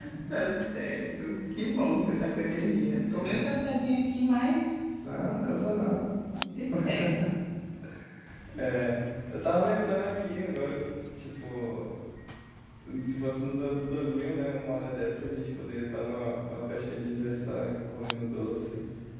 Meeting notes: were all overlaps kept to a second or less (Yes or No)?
Yes